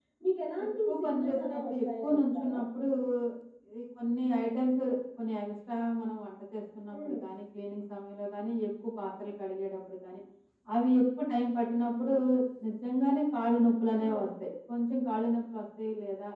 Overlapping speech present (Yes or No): Yes